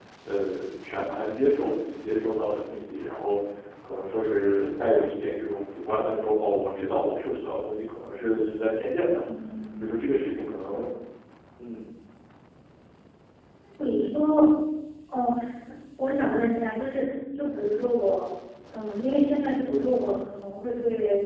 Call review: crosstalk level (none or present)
none